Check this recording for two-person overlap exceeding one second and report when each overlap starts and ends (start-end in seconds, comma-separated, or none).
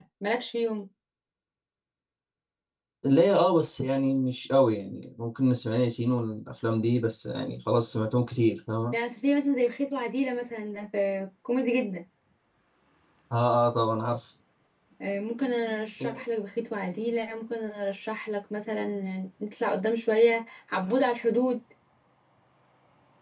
none